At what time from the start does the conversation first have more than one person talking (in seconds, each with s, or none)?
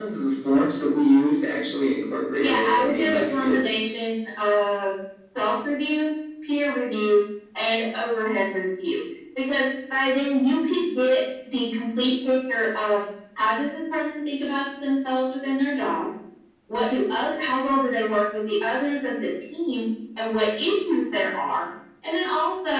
2.4 s